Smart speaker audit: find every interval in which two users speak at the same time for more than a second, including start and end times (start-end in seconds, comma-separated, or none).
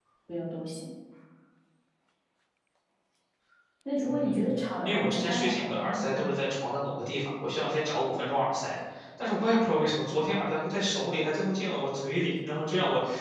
4.0-6.3